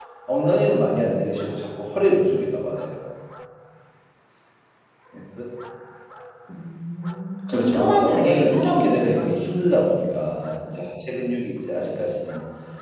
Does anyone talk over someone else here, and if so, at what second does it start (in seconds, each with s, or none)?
7.5 s